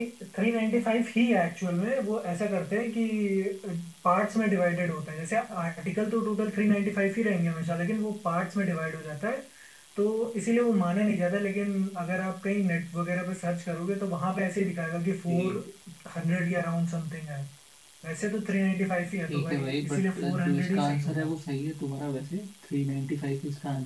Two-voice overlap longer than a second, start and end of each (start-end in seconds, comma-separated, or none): 19.3-21.3